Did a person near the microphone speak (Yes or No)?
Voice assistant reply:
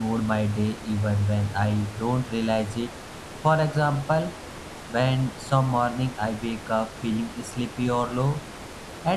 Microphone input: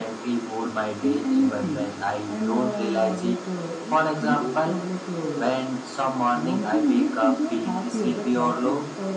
Yes